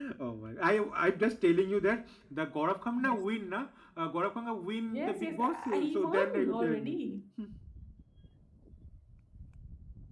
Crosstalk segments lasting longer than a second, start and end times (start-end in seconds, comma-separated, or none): 4.9-7.0